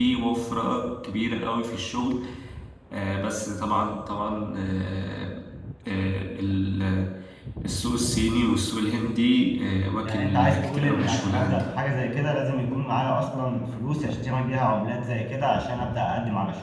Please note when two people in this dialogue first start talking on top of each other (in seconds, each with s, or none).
10.1 s